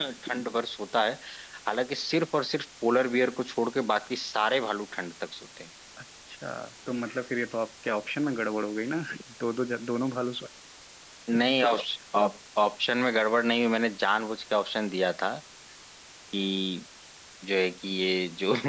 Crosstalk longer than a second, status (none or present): none